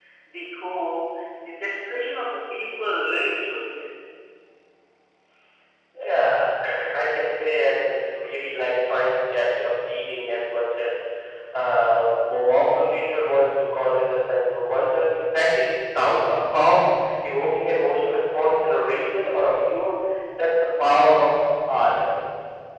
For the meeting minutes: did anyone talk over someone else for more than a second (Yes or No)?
No